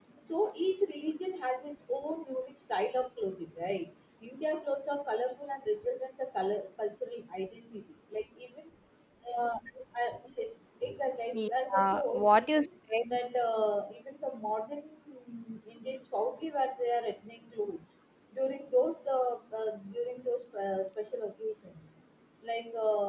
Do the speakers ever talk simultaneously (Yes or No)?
Yes